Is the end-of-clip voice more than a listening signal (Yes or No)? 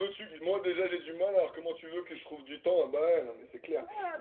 Yes